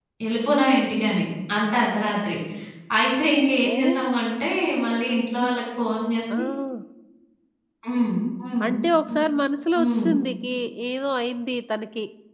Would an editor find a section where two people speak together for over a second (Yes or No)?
No